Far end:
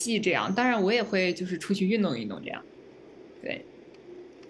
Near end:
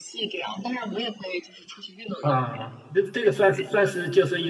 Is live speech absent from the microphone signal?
No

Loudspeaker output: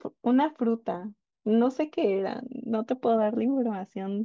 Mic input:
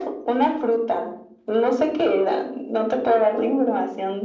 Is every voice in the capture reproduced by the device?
Yes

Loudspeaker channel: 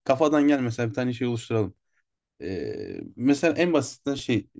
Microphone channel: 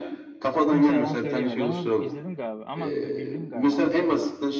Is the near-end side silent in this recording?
No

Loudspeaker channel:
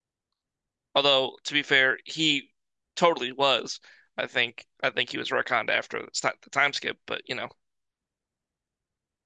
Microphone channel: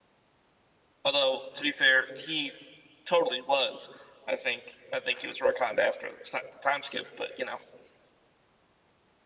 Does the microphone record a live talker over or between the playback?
No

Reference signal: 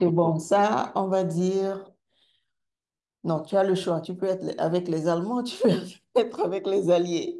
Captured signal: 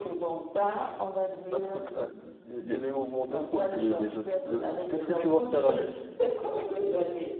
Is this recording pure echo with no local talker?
No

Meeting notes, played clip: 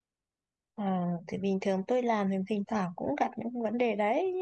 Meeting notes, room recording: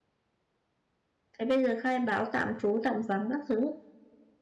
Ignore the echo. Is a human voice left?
Yes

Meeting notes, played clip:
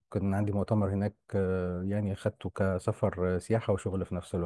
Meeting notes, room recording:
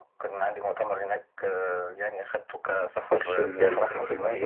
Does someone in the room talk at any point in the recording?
Yes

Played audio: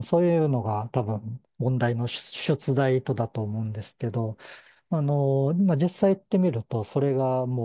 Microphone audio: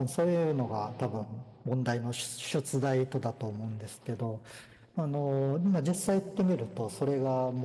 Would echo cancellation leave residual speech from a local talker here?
No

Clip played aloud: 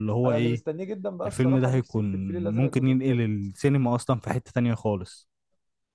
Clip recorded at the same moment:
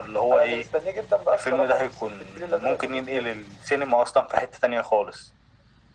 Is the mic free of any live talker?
Yes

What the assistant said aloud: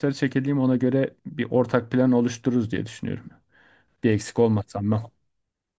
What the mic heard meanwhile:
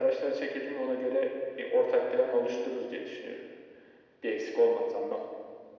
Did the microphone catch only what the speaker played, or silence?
Yes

